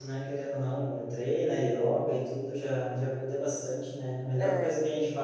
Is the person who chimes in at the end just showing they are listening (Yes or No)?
Yes